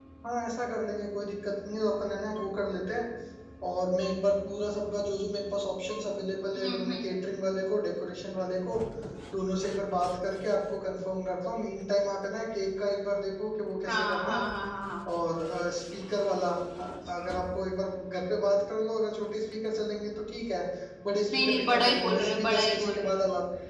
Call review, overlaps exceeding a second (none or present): present